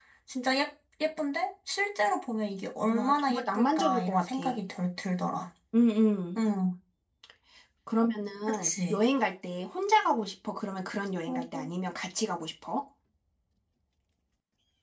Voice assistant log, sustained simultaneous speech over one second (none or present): present